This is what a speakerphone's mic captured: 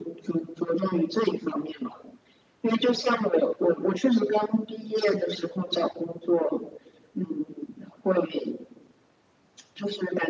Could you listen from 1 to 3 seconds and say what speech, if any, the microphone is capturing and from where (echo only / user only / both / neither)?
echo only